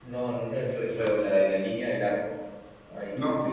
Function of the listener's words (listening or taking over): taking over